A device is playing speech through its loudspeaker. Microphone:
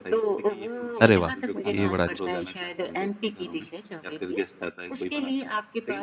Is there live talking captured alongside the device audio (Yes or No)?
Yes